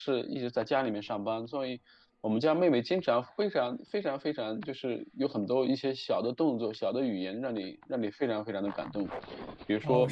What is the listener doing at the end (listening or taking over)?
taking over